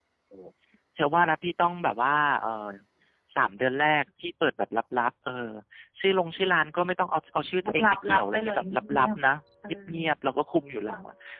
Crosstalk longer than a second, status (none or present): present